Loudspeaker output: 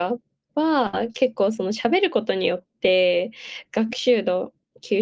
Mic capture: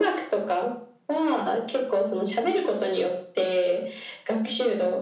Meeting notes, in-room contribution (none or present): none